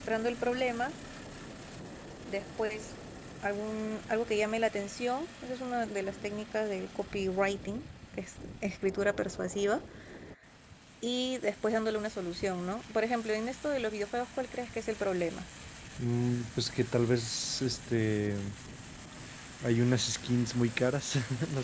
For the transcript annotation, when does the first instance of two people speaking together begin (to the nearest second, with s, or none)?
none